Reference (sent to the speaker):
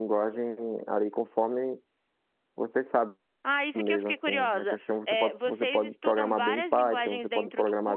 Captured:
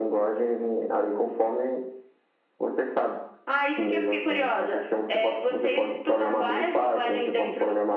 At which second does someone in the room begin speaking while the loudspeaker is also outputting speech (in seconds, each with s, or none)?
none